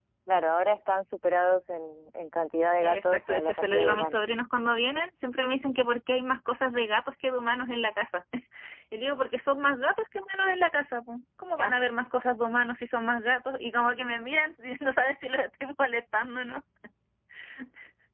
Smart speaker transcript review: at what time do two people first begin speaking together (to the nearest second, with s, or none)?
3 s